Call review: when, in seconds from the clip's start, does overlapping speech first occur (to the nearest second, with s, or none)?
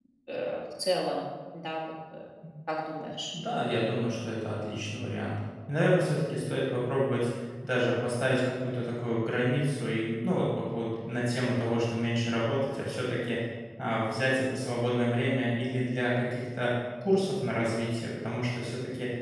none